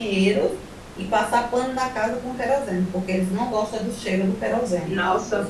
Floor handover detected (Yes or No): No